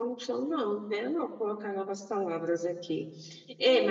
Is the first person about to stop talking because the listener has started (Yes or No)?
No